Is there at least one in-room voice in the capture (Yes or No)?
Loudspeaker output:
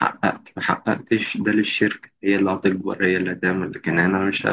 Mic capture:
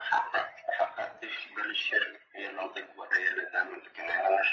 No